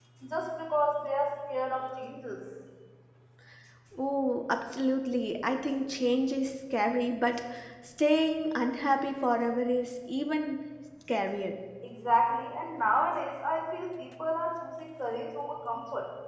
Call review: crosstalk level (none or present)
none